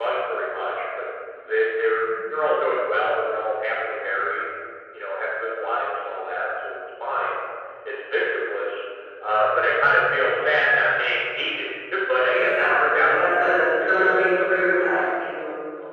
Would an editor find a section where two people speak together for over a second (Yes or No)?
Yes